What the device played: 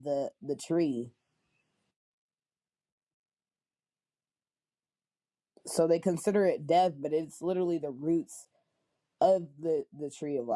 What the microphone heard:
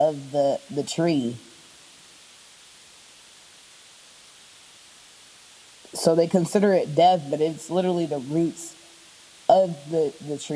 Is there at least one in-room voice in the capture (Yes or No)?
No